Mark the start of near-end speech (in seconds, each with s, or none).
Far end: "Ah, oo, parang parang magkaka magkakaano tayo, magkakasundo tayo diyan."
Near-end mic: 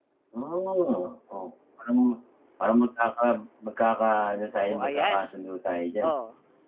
4.5 s